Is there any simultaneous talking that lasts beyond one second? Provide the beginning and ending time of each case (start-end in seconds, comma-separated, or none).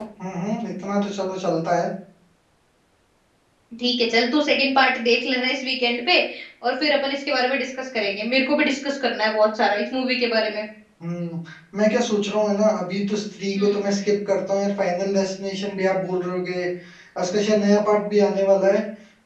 none